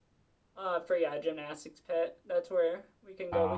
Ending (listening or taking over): listening